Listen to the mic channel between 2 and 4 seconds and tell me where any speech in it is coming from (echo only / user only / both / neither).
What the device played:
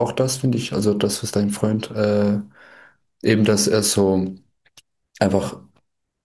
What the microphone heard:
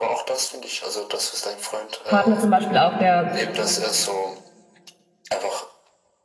both